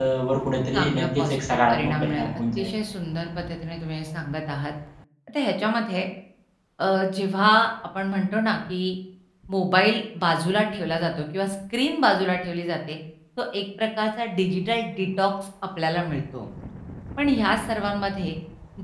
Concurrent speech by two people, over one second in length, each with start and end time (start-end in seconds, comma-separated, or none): 0.7-2.7